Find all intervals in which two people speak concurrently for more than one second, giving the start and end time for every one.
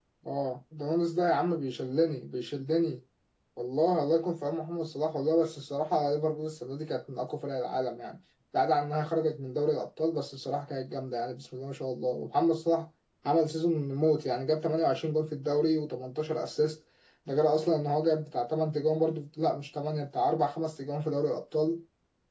none

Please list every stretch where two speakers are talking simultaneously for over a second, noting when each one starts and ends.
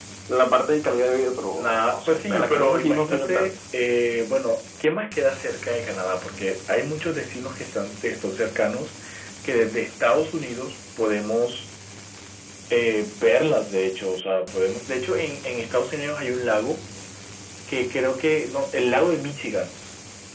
1.6-3.5

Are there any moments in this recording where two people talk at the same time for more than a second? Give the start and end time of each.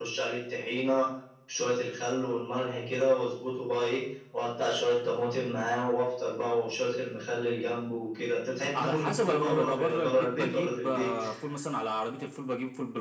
8.7-11.2

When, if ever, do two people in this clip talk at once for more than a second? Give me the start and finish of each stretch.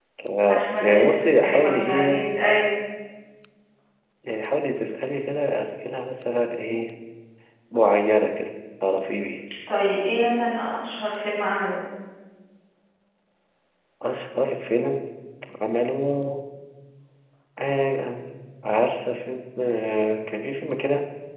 0.5-2.3

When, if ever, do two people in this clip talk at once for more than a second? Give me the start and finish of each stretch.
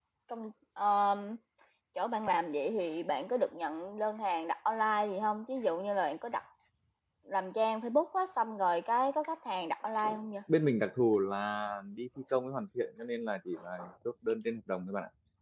none

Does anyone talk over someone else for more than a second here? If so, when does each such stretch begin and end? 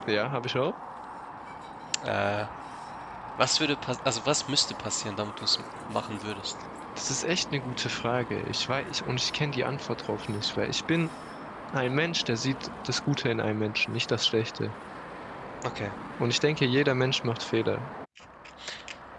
none

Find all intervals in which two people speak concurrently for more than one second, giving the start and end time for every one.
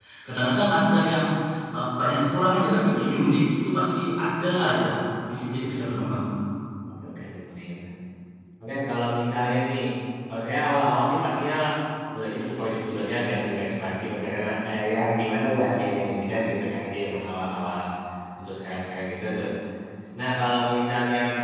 none

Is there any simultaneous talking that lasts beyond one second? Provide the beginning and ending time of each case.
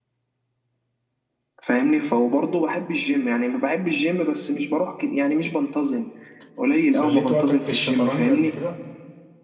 6.9-8.6

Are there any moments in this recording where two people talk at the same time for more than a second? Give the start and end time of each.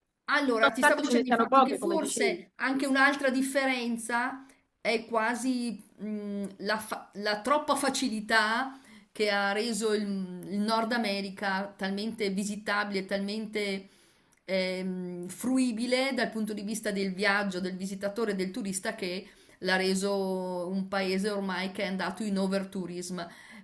0.6-2.4

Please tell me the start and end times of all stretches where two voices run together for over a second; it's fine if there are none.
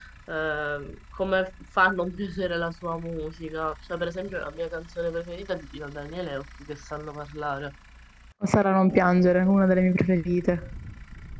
none

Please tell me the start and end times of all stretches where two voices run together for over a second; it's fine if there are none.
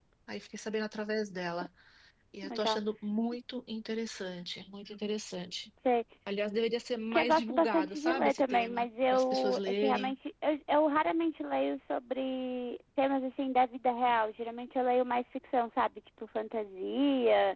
7.1-10.1

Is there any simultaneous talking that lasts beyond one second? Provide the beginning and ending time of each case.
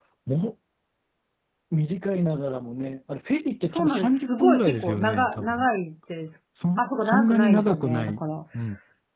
3.7-5.7, 6.8-8.2

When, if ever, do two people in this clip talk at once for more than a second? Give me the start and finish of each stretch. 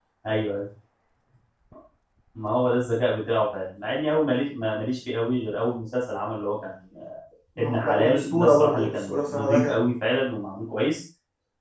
7.8-9.8

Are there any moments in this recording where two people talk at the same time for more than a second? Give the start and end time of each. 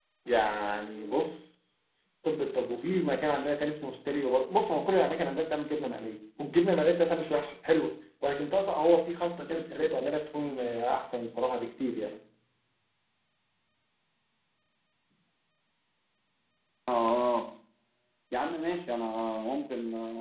none

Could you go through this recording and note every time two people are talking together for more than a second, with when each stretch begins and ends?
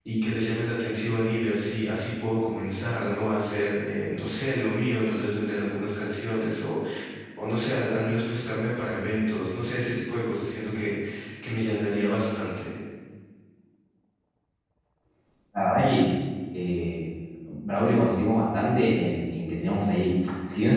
none

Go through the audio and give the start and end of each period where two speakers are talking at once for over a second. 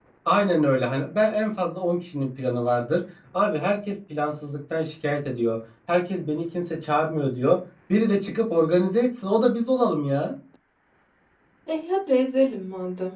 none

